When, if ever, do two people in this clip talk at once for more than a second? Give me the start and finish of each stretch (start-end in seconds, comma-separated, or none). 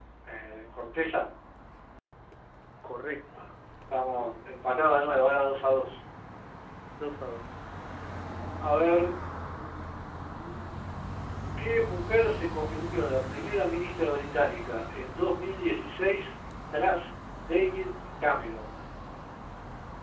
none